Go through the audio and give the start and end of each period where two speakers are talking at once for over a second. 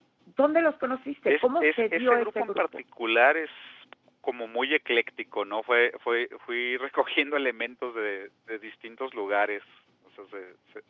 1.3-2.6

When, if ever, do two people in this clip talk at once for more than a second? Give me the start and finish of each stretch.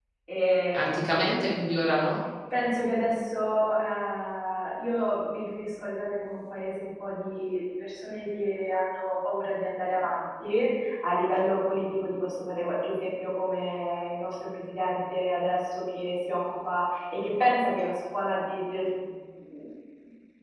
none

